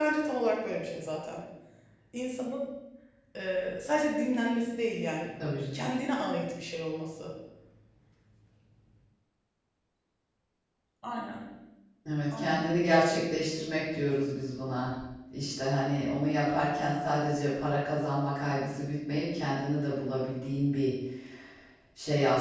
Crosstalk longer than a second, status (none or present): none